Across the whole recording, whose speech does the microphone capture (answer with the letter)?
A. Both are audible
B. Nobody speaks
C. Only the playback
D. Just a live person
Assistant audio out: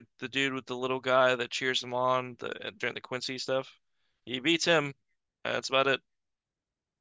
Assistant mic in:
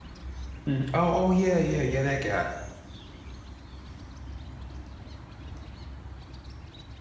D